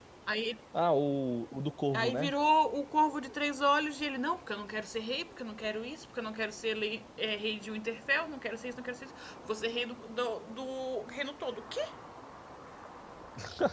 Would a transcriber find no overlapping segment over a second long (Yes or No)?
Yes